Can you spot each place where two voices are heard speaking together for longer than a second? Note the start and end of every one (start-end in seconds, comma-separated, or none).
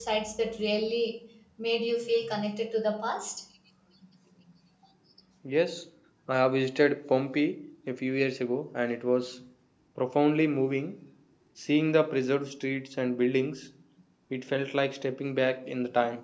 none